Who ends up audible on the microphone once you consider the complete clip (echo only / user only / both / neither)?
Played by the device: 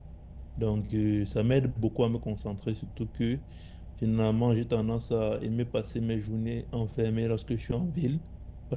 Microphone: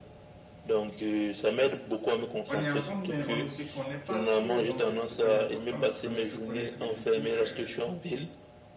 both